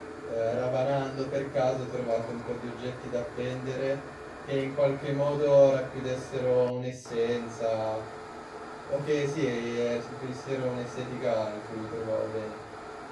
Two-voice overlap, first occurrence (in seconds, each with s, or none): none